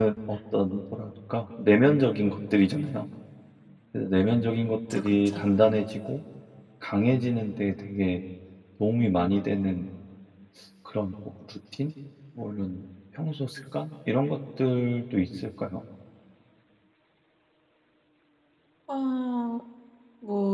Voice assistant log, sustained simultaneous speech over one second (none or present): none